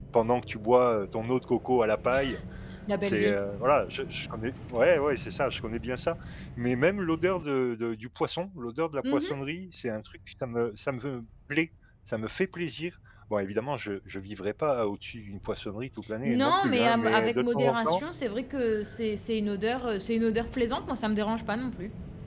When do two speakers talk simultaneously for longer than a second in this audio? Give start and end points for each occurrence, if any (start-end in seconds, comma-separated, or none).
16.2-18.0